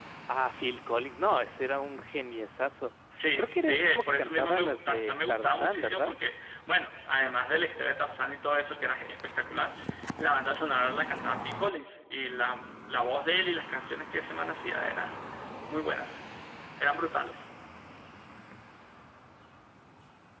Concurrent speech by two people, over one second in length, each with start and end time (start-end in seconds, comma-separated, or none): 3.4-6.1